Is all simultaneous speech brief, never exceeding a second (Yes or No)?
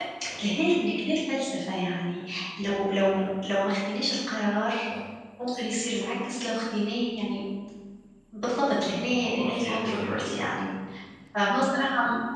No